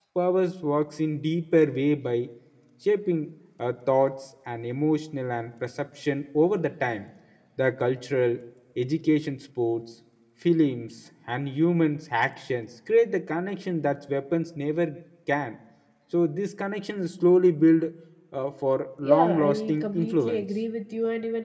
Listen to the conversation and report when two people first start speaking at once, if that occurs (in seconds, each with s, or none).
19.0 s